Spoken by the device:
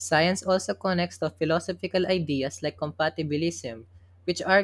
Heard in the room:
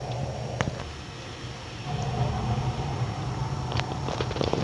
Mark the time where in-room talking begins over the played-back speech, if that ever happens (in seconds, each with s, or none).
none